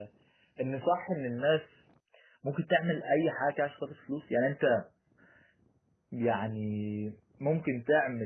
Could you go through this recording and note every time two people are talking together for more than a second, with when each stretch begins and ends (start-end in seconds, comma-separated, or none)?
none